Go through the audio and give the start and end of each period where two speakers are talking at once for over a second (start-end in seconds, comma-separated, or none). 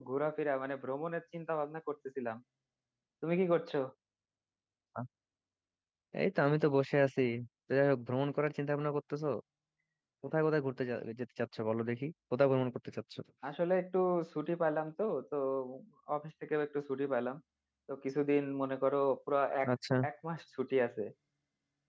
none